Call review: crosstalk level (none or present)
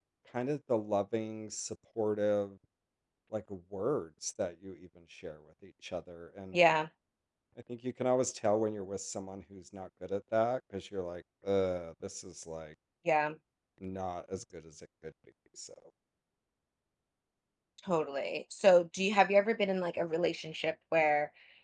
none